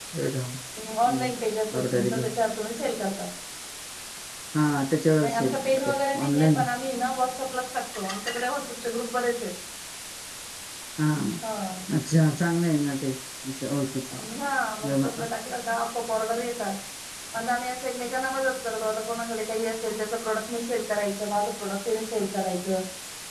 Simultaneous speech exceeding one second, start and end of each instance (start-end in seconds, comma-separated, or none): 5.2-6.6